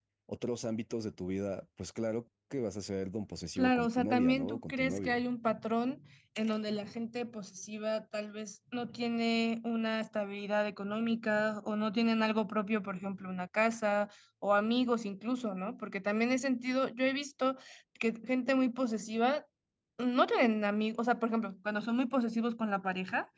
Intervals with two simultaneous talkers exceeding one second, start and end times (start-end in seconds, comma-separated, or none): 3.6-5.2